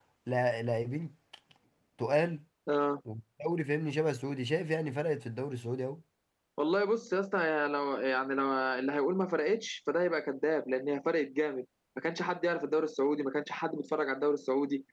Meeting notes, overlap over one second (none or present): none